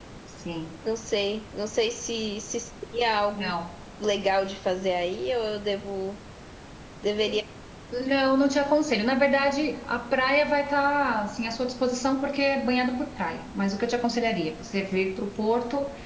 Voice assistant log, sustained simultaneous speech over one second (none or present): none